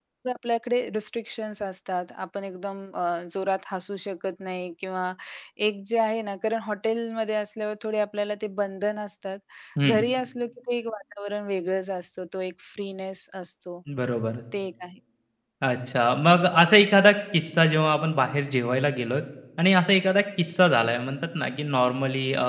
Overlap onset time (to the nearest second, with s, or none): none